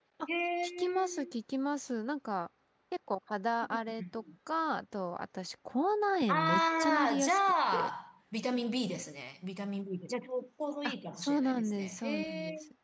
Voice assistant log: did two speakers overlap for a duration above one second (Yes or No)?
Yes